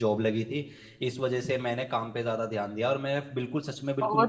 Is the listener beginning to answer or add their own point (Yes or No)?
Yes